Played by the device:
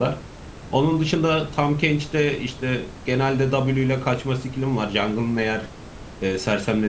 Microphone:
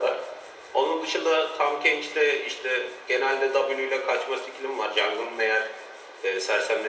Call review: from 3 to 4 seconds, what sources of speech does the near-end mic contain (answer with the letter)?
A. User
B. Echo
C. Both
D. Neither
B